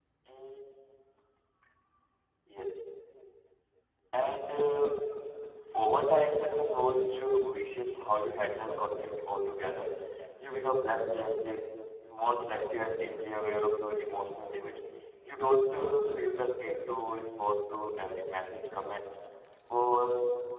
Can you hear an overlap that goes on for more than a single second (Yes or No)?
No